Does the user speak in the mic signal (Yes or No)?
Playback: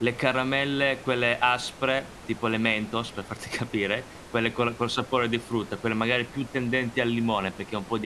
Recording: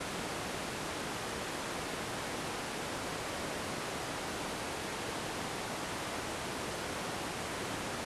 No